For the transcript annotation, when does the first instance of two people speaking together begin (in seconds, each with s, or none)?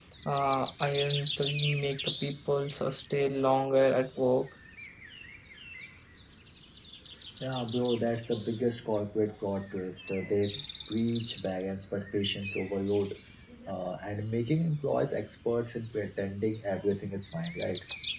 none